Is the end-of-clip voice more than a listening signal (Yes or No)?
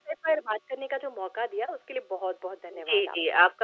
Yes